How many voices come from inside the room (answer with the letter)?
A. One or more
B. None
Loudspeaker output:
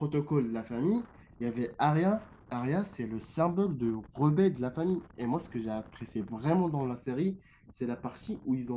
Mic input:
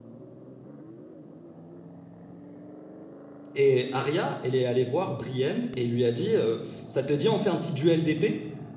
A